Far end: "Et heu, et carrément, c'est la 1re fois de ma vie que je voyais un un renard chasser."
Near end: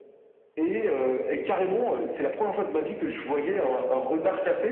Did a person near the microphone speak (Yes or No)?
No